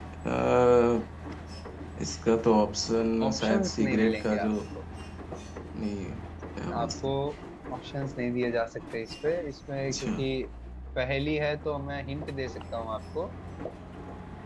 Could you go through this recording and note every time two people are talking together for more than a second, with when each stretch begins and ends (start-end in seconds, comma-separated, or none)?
3.3-4.5